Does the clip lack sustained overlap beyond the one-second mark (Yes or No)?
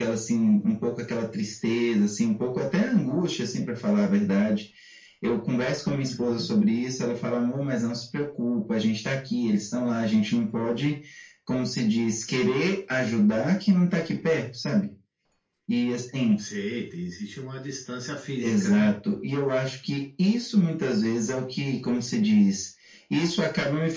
Yes